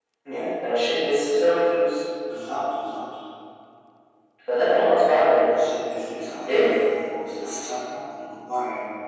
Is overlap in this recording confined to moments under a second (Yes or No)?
Yes